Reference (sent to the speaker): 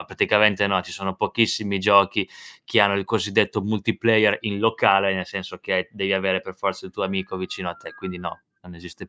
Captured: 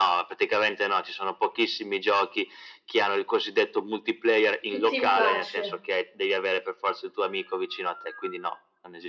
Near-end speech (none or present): present